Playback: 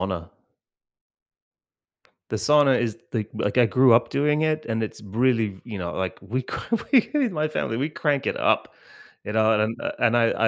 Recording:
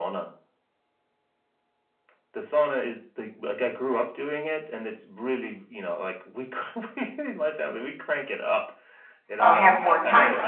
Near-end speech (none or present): present